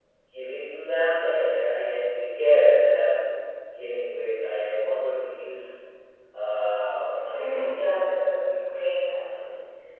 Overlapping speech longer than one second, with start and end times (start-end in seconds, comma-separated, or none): 7.3-8.6